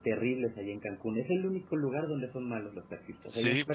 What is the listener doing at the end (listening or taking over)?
taking over